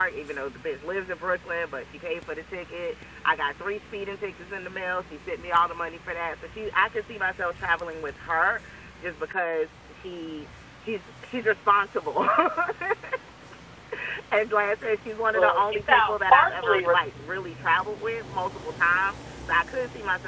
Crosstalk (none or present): present